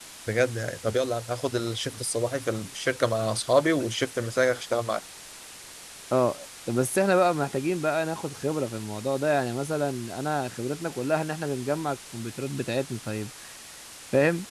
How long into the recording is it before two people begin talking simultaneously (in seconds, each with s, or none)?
none